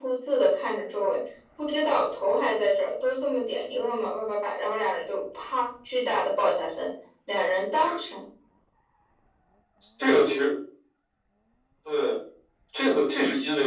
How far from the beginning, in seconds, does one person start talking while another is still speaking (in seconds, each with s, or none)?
none